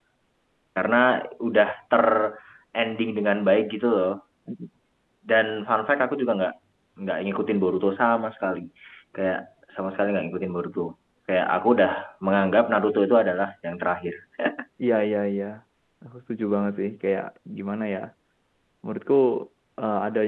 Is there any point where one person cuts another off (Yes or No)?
No